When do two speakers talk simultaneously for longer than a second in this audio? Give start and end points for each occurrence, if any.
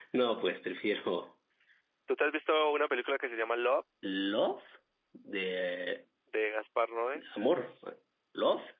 none

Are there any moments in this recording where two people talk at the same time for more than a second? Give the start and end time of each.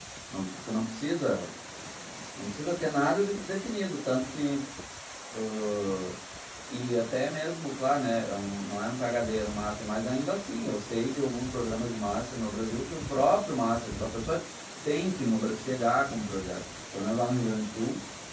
none

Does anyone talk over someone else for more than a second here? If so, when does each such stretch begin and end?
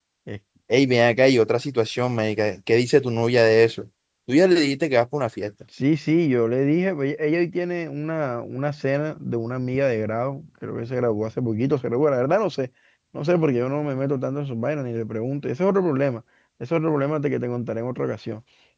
none

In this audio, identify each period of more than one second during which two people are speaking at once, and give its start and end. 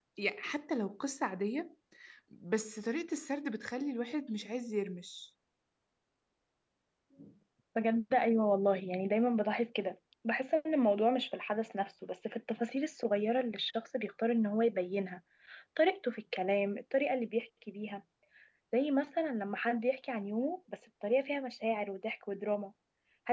none

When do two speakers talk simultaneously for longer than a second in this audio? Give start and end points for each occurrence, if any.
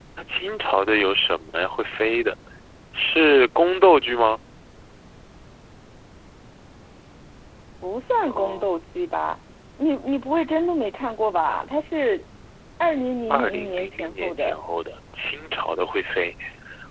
13.3-14.5

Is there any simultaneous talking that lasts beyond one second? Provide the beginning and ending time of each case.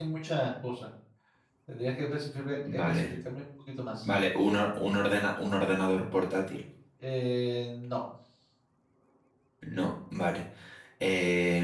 none

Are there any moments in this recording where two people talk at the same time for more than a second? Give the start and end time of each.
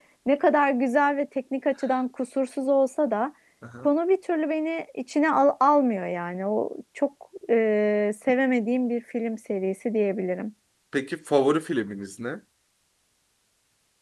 none

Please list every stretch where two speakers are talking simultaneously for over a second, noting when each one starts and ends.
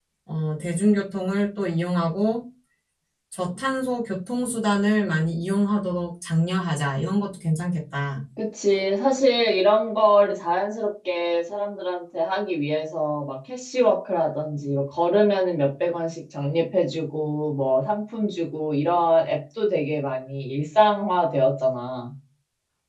none

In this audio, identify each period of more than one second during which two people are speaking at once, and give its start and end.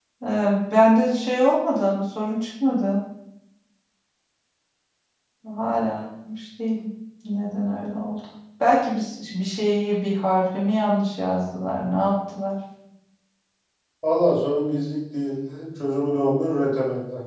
none

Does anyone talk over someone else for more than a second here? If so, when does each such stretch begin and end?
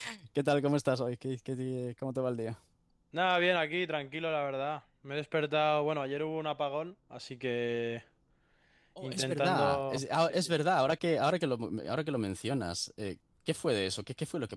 9.0-10.5

